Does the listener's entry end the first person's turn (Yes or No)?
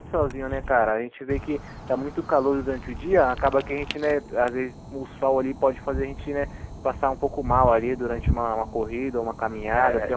Yes